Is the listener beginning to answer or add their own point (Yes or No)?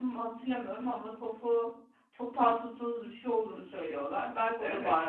Yes